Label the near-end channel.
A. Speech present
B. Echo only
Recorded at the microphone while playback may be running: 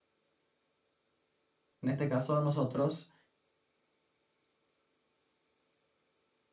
A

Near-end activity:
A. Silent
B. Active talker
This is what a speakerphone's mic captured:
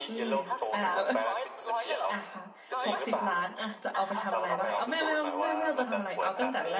B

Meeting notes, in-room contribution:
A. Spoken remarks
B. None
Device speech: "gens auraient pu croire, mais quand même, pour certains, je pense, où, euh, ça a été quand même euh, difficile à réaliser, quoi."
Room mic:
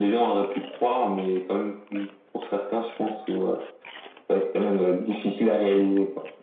B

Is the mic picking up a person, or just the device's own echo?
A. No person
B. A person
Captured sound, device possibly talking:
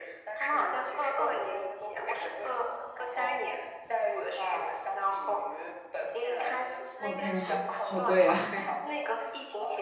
B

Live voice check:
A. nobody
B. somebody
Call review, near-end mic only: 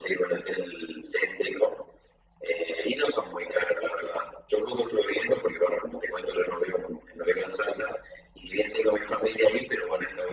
A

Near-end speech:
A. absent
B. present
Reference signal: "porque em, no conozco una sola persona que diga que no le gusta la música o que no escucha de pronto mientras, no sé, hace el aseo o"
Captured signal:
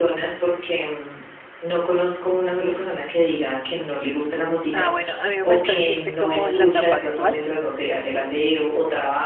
B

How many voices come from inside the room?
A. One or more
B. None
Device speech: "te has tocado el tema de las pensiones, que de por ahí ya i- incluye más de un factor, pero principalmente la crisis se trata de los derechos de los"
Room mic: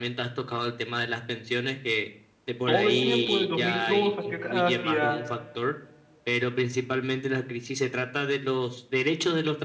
A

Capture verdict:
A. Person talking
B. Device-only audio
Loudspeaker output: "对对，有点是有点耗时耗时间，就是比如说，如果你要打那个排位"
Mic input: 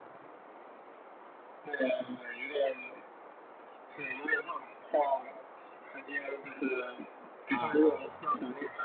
A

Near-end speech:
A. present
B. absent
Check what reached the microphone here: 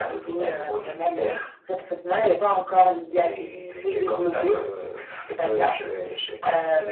B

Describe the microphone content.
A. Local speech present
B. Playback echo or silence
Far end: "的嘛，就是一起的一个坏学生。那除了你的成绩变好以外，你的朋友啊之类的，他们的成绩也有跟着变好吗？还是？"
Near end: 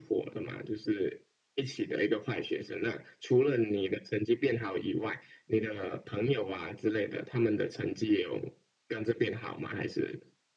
B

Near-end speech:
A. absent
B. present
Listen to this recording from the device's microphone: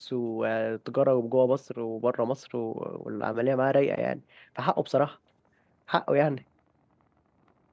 B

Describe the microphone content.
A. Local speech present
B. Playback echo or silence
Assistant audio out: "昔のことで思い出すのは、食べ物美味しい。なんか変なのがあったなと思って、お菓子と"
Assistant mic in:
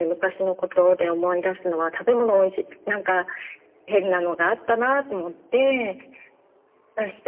B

